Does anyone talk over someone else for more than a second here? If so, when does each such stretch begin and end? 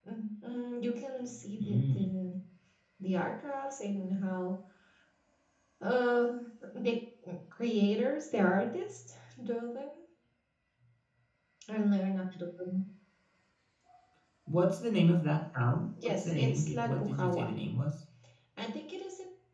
16.0-17.5

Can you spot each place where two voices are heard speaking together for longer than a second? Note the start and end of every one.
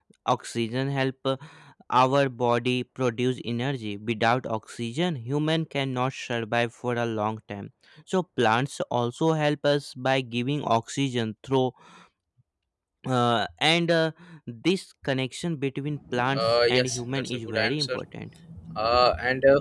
16.3-18.0

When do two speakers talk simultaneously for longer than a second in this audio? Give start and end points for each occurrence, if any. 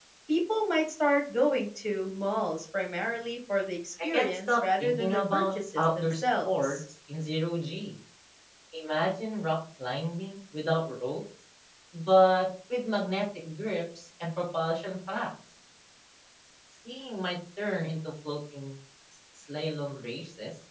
4.0-6.8

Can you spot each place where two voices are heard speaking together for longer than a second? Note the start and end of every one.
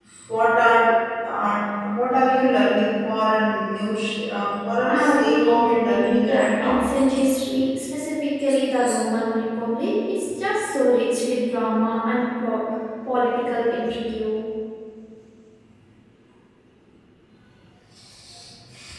4.8-6.8

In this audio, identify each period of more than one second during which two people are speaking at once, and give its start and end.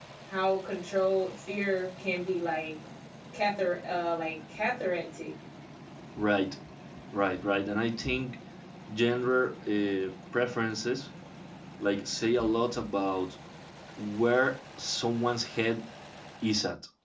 none

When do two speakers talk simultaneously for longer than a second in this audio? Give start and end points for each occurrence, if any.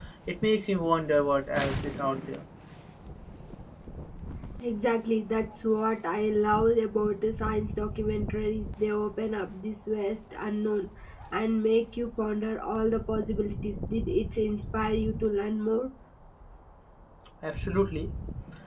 none

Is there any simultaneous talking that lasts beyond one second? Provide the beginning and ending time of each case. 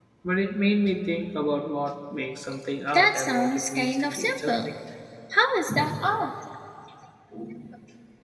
2.9-4.7

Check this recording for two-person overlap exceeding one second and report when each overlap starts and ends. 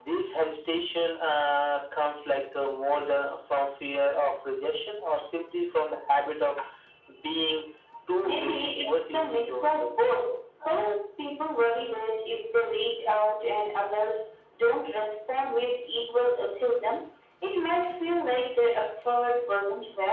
8.2-9.9

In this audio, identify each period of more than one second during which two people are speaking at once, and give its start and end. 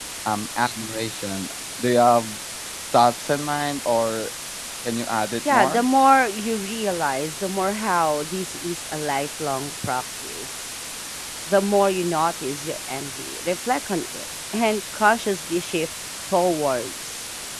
none

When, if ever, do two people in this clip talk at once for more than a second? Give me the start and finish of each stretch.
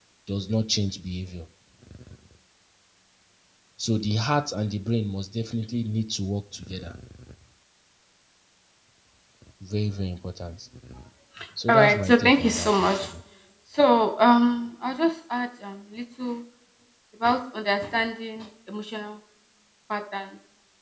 11.7-13.1

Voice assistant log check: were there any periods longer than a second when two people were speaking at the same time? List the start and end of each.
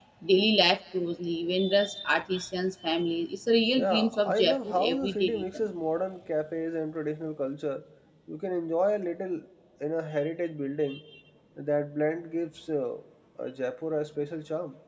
3.8-5.5

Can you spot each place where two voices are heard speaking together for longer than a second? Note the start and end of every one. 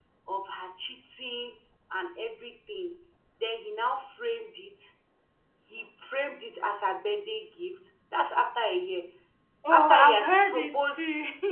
9.7-11.0

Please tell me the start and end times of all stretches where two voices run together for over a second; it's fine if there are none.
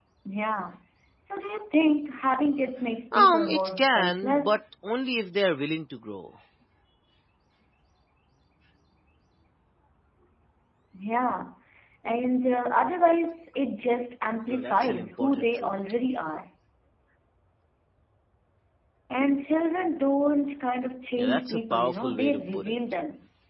3.1-4.6, 14.5-15.7, 21.2-22.8

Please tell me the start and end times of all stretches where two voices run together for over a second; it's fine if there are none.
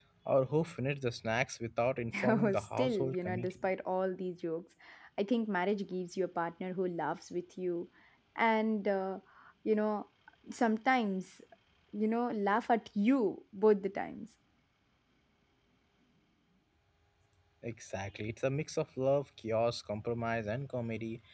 2.3-3.7

